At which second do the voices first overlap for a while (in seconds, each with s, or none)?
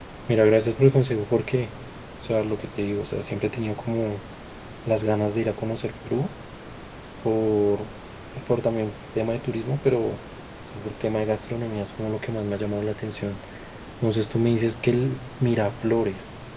none